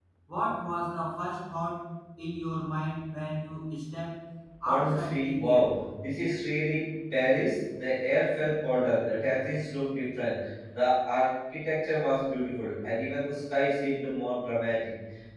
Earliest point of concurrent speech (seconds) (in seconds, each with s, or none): 4.6 s